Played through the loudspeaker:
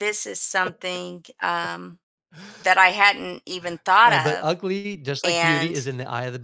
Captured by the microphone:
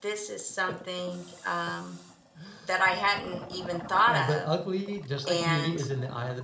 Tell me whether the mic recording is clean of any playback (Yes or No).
No